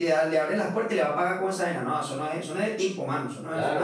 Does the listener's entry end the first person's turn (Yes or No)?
Yes